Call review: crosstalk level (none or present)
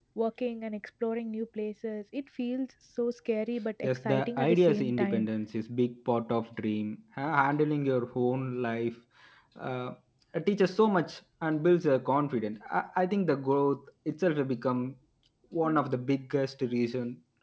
present